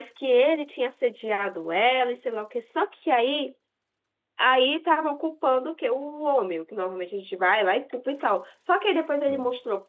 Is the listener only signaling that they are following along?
Yes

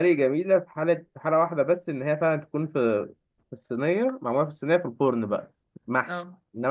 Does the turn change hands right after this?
No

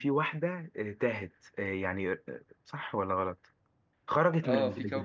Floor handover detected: Yes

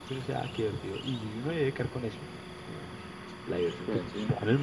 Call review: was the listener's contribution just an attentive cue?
Yes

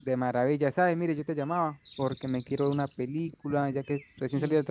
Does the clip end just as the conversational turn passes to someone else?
No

